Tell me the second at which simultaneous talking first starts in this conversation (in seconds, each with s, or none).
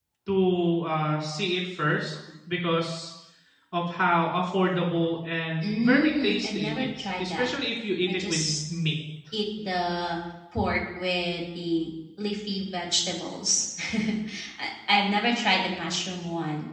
5.6 s